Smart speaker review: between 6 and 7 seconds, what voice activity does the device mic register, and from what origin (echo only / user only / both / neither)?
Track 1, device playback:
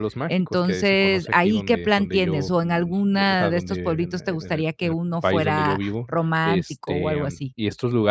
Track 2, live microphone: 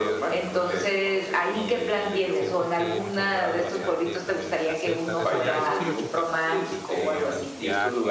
both